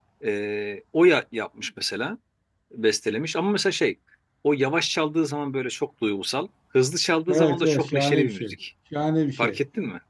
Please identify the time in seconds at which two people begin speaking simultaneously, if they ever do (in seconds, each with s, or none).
7.3 s